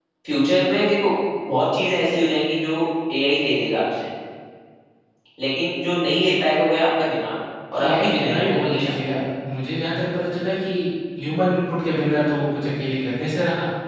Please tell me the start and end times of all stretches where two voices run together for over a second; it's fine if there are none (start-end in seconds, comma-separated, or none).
7.8-9.2